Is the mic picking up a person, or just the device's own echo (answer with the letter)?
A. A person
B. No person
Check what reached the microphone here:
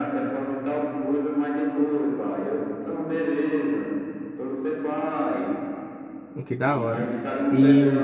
A